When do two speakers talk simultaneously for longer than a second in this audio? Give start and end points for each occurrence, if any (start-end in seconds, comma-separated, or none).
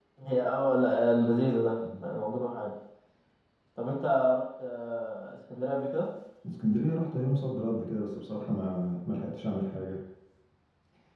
none